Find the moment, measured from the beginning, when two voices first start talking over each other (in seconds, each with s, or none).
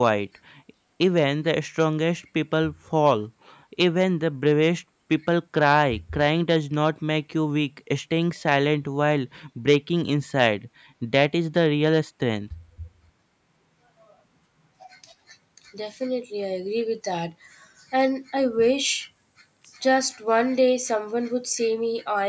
none